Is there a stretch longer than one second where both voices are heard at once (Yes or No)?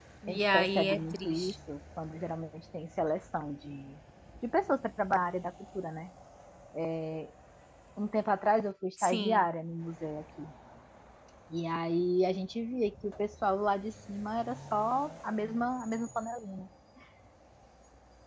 Yes